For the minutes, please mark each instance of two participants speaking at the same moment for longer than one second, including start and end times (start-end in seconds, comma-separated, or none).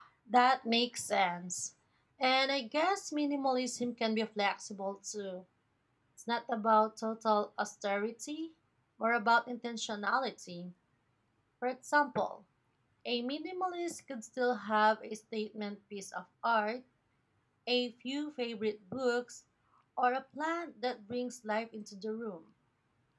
none